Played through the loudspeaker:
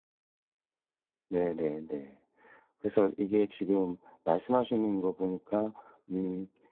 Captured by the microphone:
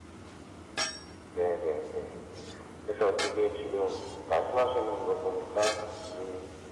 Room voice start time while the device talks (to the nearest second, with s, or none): none